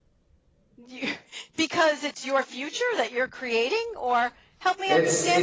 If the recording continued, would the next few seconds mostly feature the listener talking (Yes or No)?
Yes